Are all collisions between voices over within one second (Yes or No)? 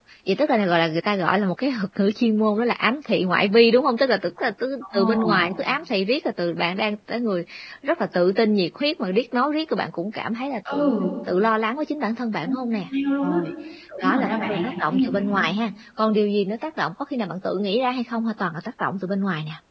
No